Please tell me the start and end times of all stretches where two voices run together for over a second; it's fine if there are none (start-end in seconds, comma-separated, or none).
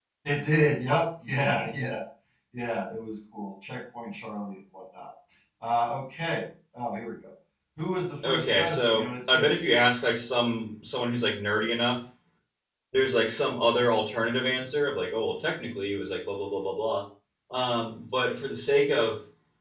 8.2-9.7